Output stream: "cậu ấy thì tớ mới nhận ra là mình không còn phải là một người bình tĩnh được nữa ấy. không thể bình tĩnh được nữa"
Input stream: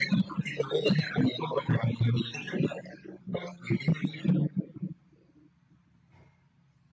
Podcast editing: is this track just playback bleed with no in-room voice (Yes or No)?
Yes